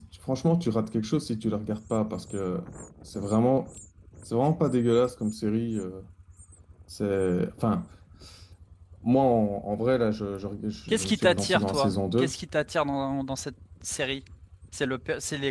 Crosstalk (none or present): present